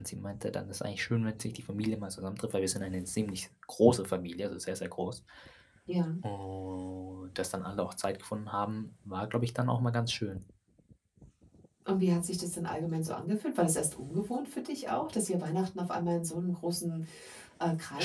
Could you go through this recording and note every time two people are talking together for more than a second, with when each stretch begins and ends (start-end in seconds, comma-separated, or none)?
none